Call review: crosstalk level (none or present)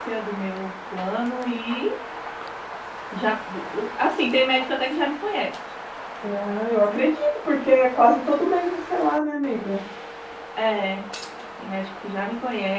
none